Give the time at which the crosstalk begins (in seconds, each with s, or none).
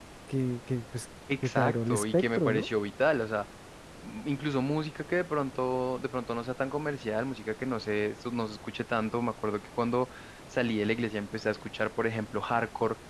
1.3 s